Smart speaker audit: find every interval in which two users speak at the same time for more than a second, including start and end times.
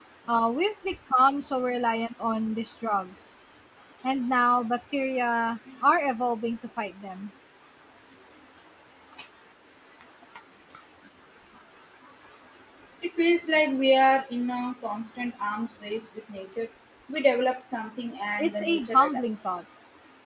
18.4-19.6

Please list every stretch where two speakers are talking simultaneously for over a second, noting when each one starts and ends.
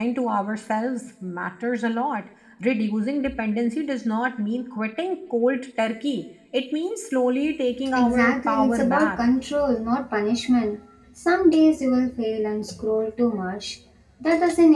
8.0-9.3

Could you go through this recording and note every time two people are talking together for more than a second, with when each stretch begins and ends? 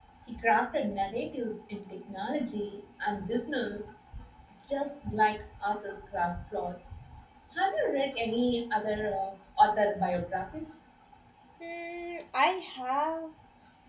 none

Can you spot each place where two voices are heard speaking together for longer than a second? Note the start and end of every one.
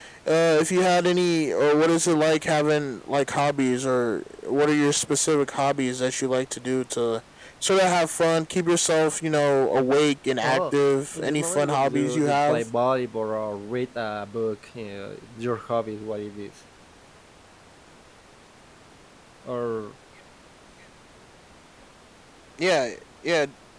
11.2-12.7

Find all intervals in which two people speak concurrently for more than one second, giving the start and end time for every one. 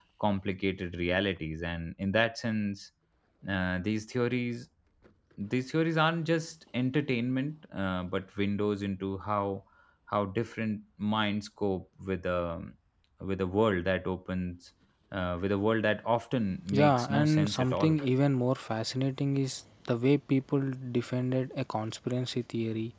16.7-18.0

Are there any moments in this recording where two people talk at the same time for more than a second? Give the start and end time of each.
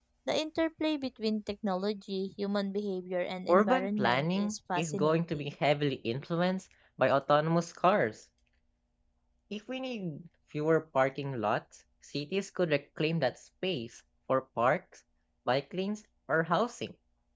3.5-5.5

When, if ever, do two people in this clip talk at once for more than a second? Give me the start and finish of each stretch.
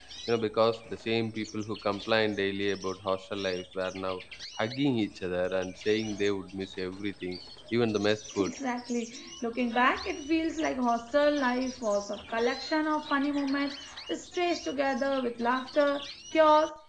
none

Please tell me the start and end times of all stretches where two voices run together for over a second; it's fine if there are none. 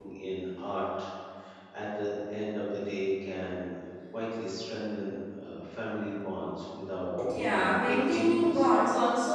7.3-8.7

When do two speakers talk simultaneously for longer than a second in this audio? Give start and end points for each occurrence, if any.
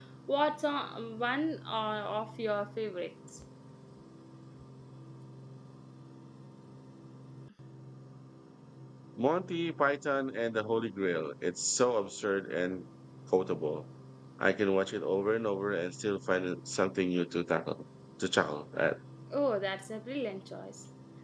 none

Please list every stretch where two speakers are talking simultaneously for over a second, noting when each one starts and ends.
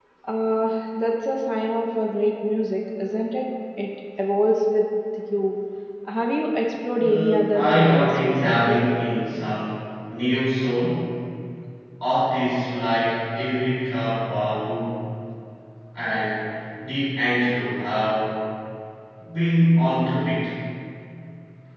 7.0-8.8

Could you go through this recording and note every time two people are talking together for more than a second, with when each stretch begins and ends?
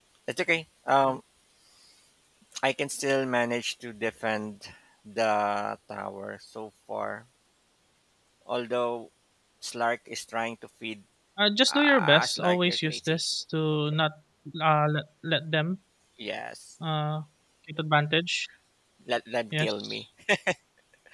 11.7-13.2

